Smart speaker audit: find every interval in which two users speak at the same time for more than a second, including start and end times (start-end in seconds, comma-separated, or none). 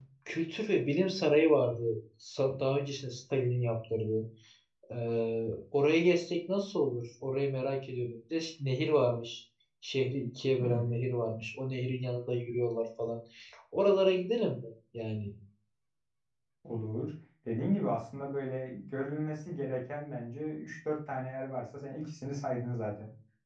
none